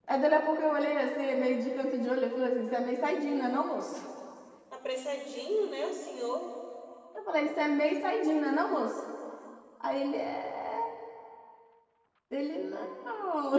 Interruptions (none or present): none